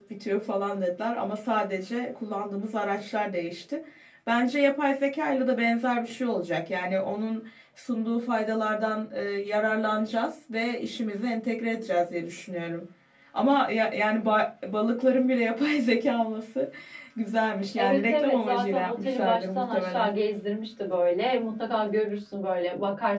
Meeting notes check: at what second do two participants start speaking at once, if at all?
17.8 s

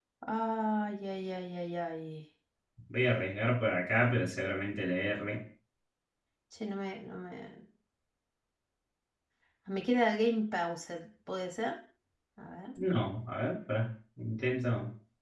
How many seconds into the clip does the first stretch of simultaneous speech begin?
none

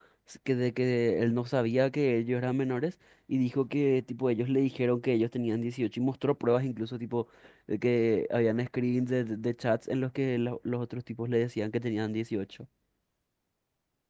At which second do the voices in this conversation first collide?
none

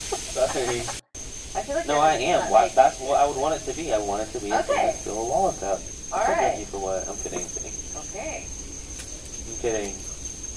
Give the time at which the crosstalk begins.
1.8 s

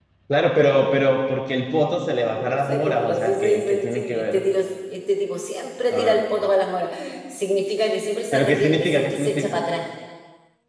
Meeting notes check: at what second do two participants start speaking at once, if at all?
2.4 s

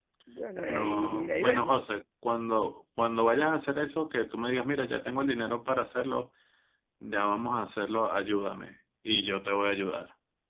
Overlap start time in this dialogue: 0.6 s

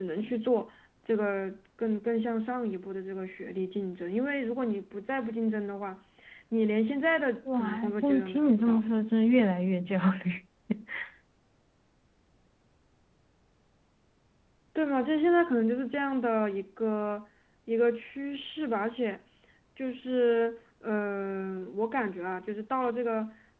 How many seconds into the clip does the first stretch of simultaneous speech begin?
7.5 s

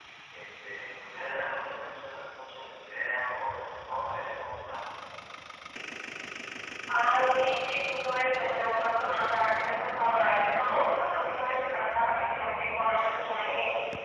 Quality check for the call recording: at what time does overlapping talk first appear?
none

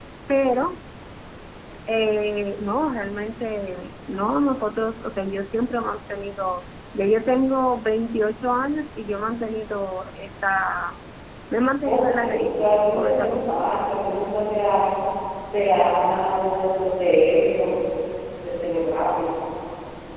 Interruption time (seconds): 11.8 s

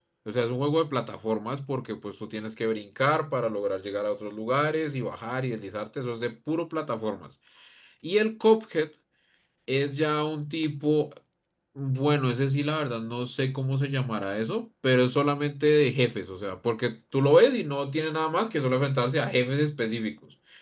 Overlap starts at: none

